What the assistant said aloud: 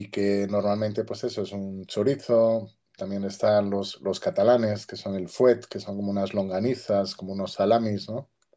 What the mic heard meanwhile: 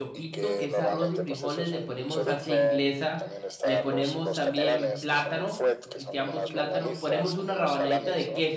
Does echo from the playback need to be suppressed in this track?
Yes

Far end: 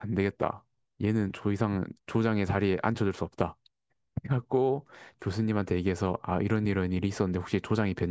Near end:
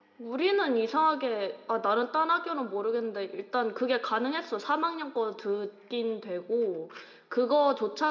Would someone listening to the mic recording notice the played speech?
No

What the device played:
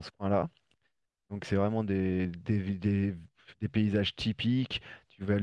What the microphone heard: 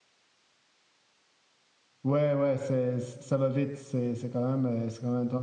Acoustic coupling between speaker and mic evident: No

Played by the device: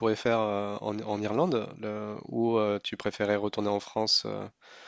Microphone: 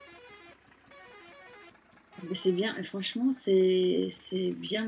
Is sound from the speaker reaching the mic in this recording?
No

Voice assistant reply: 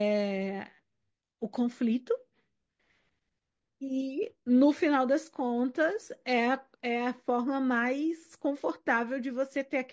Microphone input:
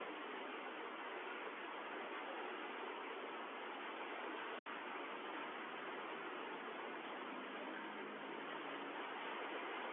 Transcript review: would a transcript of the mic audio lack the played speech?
Yes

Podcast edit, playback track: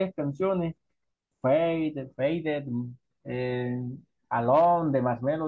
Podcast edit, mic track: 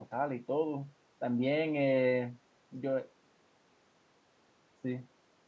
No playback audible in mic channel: Yes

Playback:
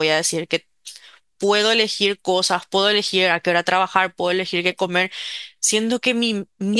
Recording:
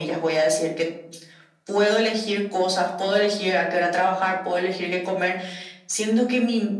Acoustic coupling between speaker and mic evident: Yes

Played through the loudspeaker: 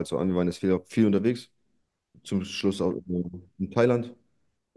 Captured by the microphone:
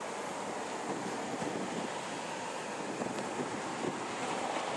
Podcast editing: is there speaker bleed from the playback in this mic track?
No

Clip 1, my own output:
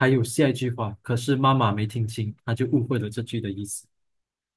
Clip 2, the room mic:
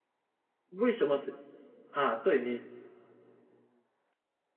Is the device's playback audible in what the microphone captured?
No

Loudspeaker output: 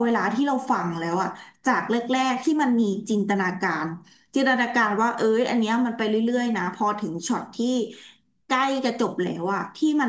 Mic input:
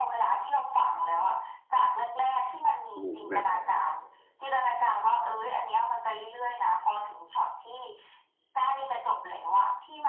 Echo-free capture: No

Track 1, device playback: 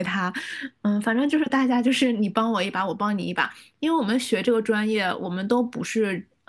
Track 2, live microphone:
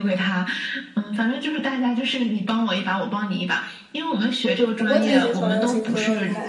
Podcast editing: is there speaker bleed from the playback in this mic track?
Yes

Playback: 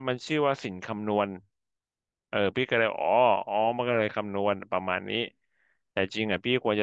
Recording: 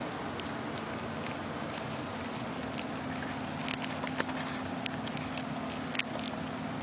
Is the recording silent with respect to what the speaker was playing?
Yes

